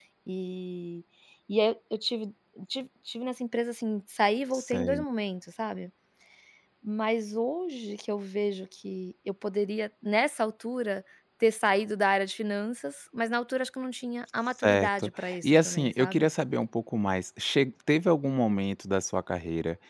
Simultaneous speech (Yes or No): Yes